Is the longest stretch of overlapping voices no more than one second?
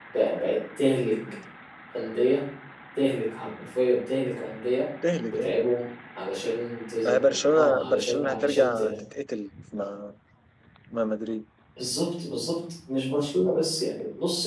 No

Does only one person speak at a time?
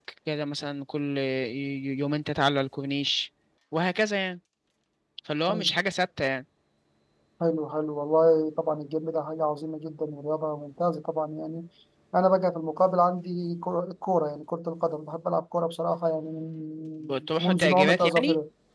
No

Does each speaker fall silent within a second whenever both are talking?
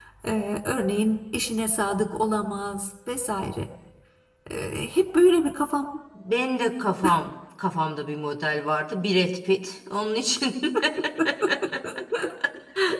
Yes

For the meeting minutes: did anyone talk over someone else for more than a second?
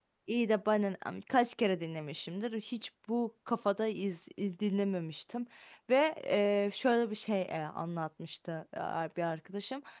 No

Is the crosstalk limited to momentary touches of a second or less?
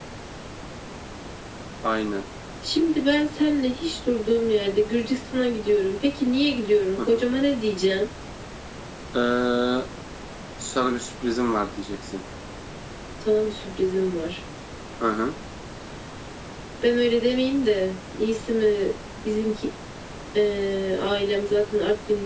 Yes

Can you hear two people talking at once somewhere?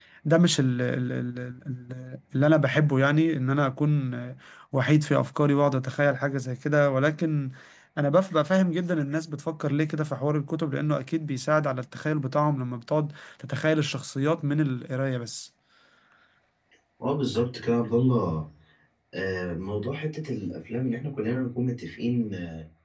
No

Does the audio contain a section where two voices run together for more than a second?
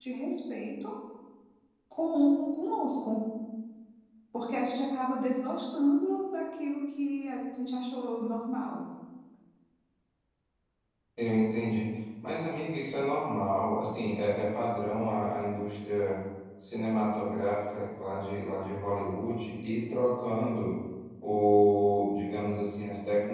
No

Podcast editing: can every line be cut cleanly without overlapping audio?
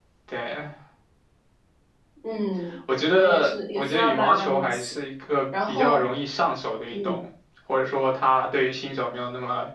No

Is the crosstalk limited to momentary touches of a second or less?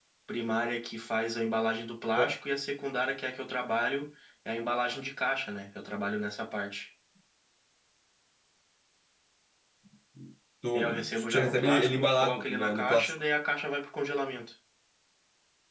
No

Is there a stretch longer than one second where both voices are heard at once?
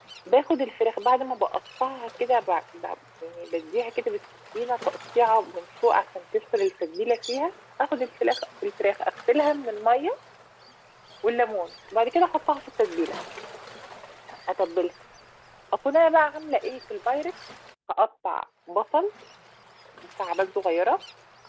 No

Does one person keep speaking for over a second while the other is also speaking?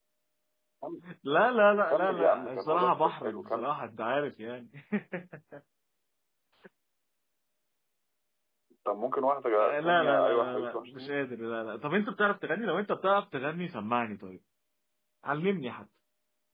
Yes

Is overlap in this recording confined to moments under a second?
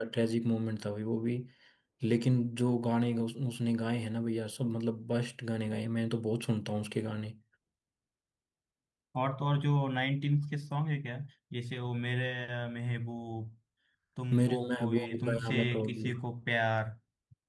No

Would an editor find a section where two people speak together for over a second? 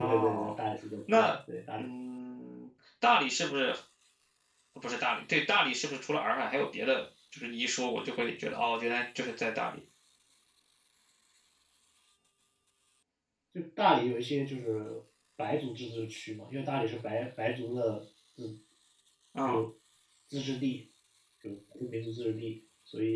No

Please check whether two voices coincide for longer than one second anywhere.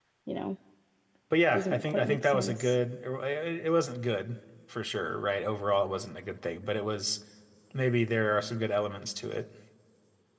Yes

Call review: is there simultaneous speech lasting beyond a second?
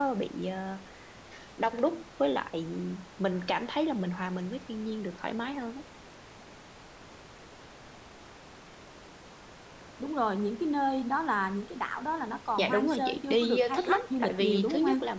Yes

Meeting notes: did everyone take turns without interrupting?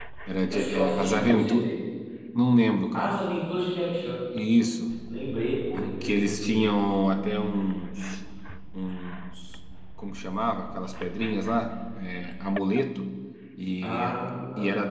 No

